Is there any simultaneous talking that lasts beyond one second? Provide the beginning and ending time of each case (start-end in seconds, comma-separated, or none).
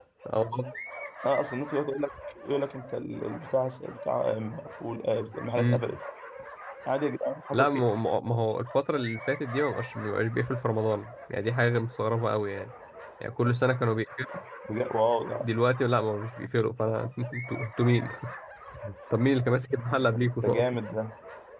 none